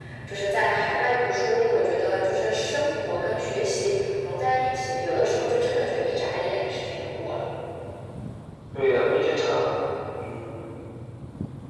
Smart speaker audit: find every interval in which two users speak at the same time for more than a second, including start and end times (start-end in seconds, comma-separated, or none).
none